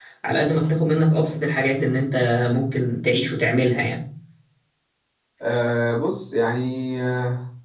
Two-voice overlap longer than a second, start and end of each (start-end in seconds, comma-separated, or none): none